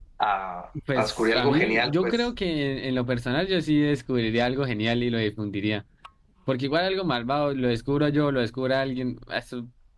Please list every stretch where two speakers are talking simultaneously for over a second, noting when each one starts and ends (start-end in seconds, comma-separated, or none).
1.0-2.2